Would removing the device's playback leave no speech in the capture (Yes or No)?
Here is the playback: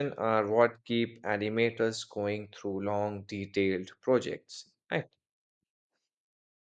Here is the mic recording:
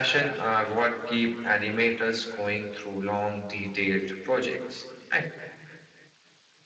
Yes